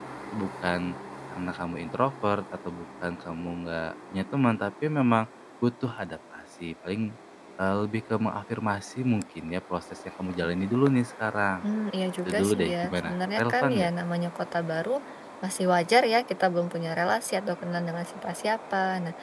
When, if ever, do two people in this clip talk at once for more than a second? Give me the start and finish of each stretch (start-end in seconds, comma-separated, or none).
12.2-13.9